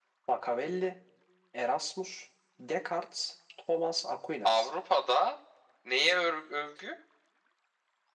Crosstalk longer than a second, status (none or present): none